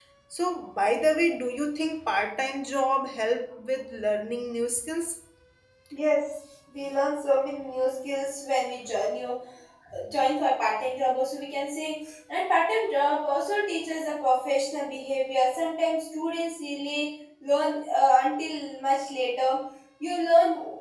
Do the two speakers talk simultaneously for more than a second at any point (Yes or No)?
No